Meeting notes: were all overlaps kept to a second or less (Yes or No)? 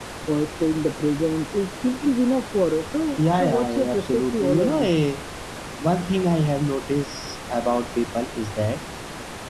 No